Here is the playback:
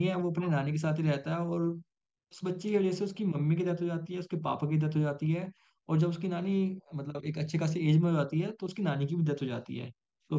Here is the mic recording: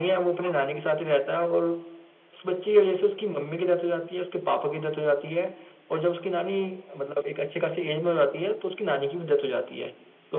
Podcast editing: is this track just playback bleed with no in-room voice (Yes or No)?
Yes